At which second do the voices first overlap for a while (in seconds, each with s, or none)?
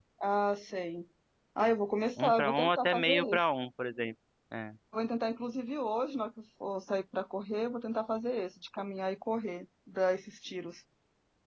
2.2 s